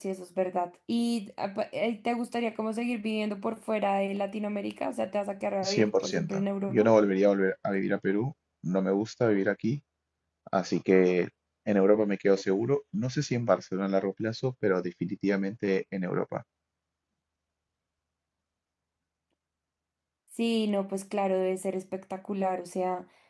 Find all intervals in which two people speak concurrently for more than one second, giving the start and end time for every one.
5.6-6.9

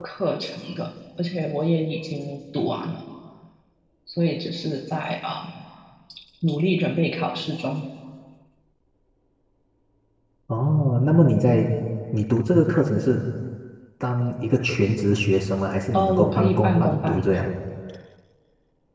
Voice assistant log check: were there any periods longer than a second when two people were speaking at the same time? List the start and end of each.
15.9-17.5

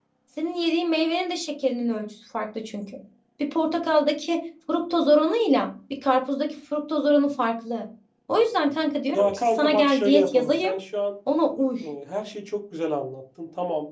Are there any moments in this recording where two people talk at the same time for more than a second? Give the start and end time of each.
9.1-10.7

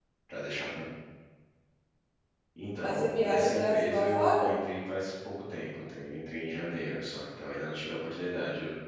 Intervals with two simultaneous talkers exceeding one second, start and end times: 2.8-4.5

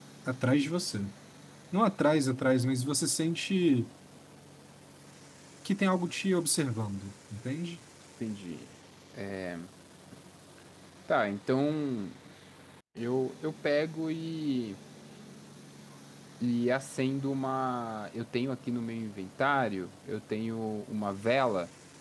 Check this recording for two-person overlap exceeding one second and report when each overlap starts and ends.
none

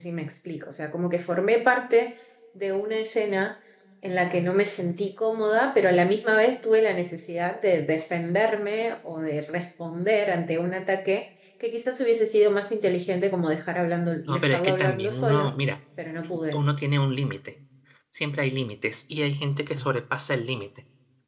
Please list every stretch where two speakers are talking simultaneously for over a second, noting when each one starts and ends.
14.3-15.5

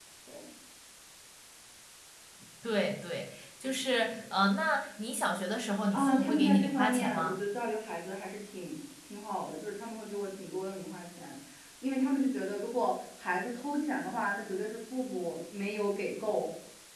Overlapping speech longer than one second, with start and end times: 5.9-7.4

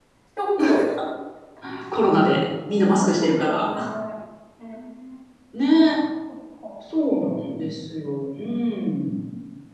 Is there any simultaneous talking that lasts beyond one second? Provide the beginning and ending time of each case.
2.7-3.9

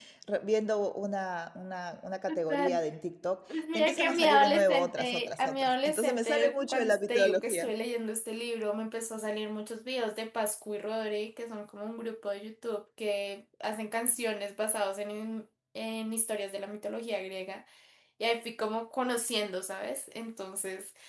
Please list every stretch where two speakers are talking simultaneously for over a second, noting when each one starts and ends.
3.7-7.7

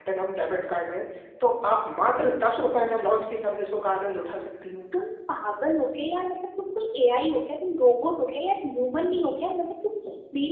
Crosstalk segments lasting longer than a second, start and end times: none

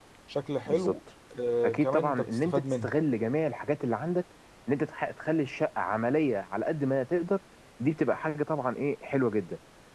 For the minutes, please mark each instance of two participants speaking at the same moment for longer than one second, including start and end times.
1.6-2.9

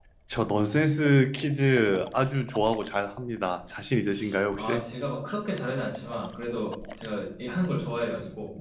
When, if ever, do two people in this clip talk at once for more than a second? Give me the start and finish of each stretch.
none

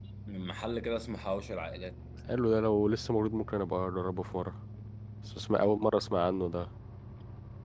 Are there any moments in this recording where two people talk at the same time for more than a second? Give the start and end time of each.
none

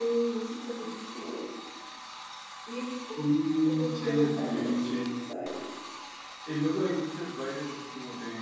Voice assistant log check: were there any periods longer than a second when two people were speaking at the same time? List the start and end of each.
3.6-5.1

